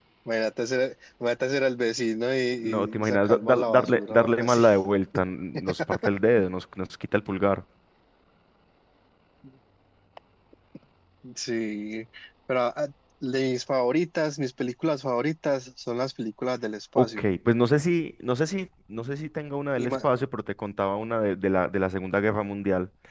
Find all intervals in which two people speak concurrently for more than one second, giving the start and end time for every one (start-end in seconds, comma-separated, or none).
2.6-4.6